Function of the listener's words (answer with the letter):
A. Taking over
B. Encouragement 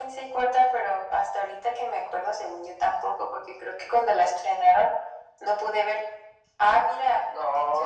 A